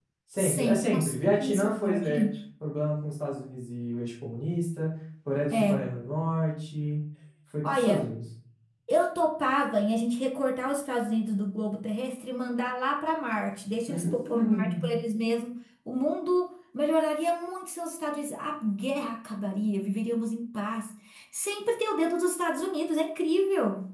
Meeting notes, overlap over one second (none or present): present